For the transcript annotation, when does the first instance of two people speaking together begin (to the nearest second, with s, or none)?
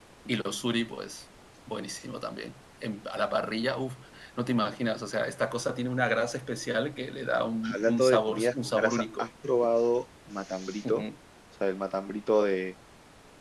8 s